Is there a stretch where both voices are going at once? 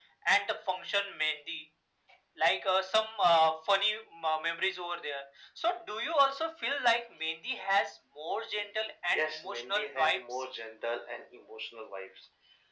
Yes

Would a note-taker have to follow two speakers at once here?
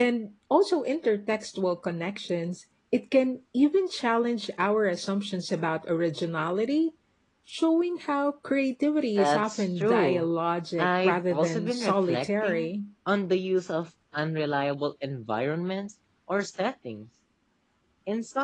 Yes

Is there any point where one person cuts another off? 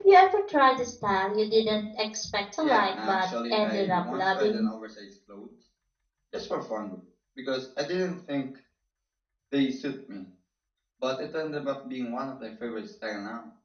Yes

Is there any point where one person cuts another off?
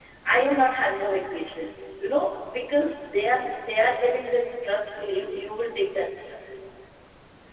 No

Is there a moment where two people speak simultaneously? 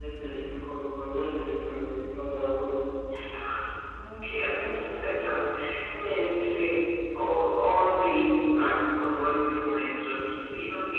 No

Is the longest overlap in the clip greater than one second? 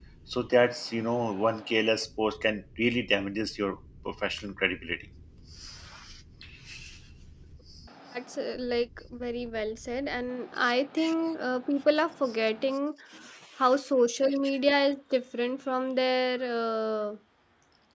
No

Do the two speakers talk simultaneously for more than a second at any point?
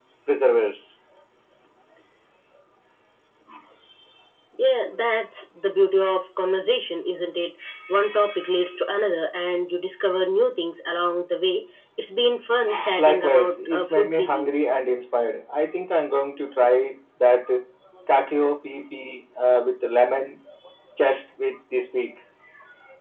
Yes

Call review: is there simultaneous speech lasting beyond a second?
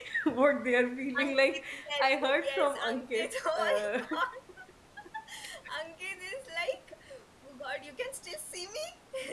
Yes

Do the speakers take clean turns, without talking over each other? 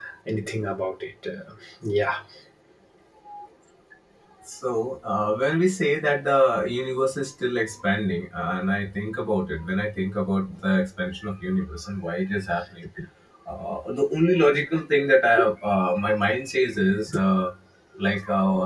Yes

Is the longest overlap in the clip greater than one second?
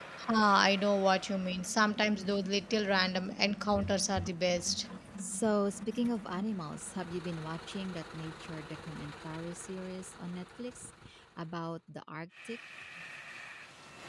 No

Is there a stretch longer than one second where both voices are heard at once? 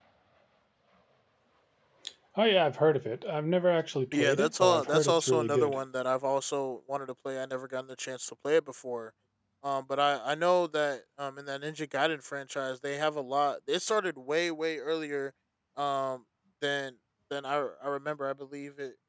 Yes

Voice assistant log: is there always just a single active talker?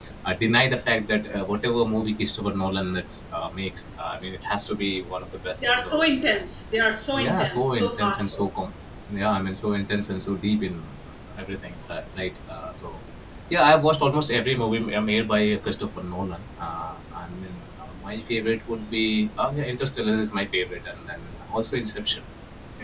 No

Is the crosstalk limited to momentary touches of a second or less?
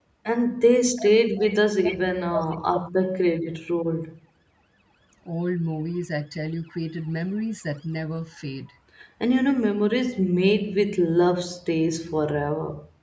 Yes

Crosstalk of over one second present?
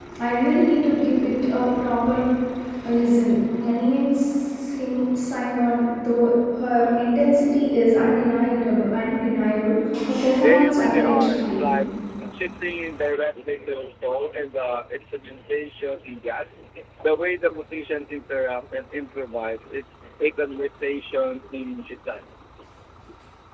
Yes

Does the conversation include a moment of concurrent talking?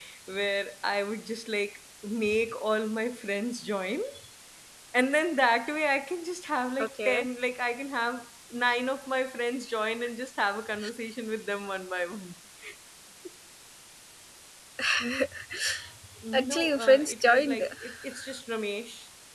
Yes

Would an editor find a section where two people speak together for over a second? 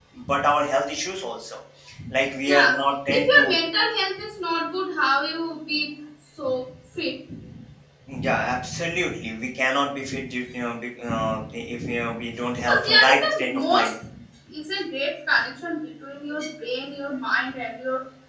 Yes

